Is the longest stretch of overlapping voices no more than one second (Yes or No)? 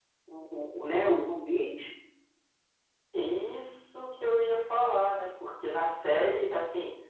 Yes